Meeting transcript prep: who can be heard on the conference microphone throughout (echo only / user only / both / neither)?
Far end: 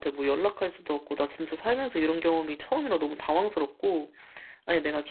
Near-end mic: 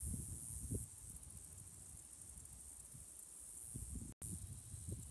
neither